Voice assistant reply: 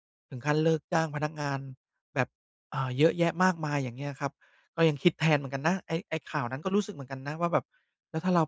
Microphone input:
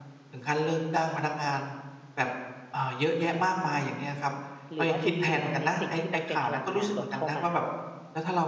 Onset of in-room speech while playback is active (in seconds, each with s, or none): 4.7 s